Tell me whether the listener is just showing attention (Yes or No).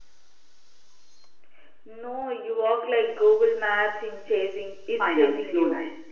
No